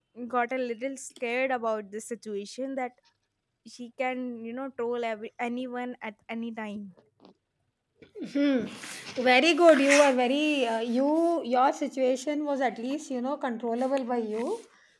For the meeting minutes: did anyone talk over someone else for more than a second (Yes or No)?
No